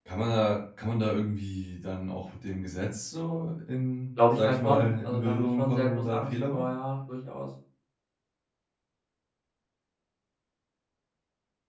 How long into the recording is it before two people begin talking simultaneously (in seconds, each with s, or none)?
4.2 s